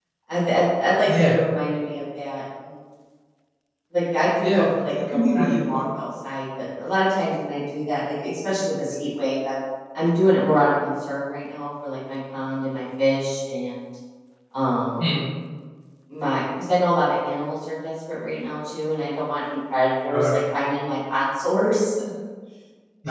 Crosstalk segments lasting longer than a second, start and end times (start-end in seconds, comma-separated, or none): 4.4-6.0